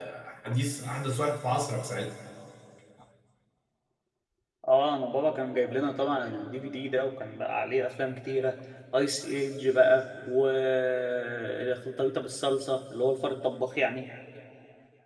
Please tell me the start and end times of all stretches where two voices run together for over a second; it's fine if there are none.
none

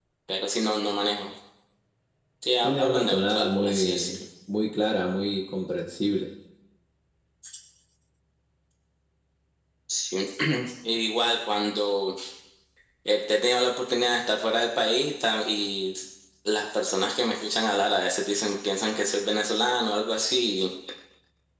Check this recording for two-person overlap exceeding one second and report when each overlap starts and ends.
2.6-4.1

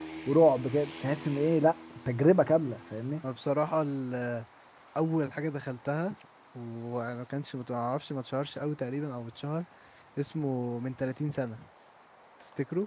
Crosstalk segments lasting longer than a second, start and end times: none

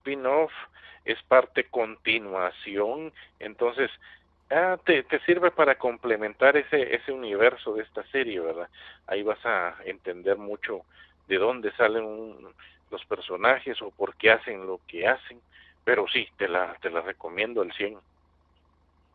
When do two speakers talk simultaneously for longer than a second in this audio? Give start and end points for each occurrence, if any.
none

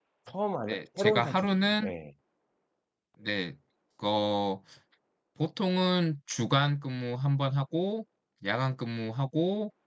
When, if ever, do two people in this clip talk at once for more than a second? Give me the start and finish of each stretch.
0.7-1.9

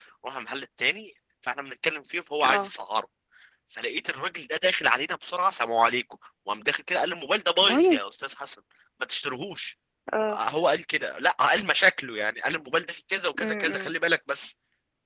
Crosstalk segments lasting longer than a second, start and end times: none

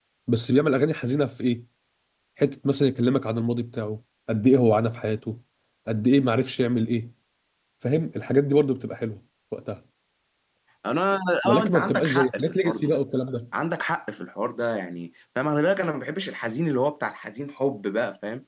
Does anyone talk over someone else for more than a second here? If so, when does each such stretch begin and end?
11.4-12.9

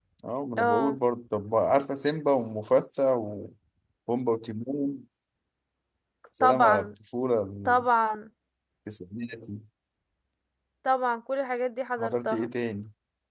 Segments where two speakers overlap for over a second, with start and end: none

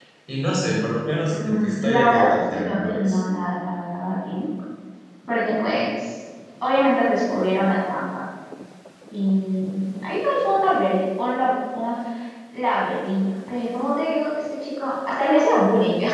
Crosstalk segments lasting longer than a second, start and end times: 1.3-3.2

